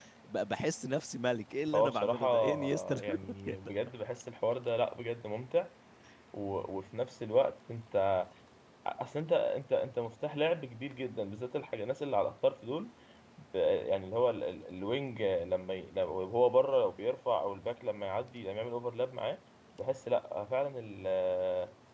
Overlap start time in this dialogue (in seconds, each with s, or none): 1.7 s